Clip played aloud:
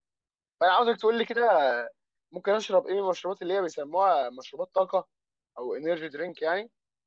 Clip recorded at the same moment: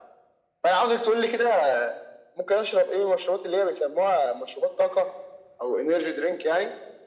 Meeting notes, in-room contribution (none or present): none